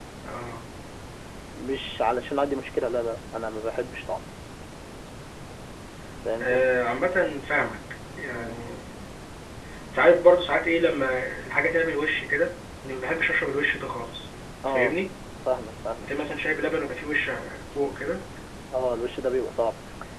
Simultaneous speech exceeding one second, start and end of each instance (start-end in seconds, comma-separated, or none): none